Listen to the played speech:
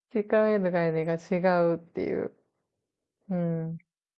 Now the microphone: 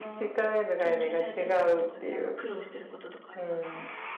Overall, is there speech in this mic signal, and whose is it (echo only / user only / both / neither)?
both